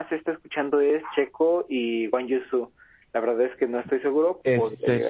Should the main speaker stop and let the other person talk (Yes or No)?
Yes